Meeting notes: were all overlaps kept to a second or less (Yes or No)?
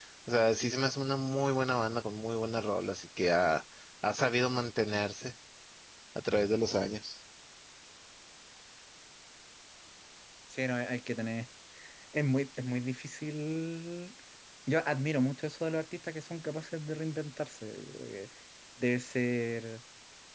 Yes